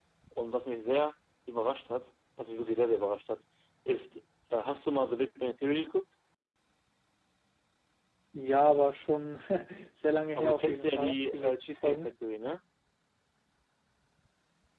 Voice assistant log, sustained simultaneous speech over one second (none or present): present